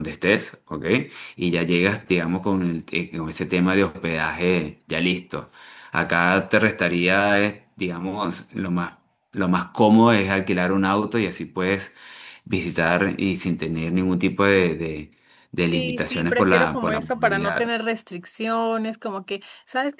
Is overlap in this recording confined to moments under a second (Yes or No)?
No